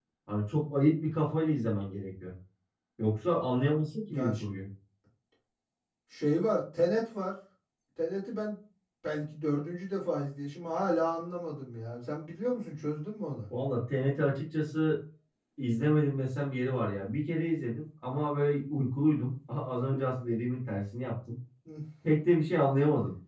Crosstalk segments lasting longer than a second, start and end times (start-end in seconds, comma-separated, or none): none